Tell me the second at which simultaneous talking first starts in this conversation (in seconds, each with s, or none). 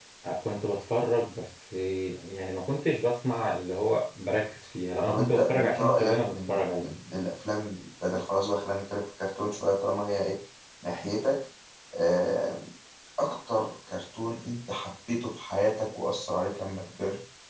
5.0 s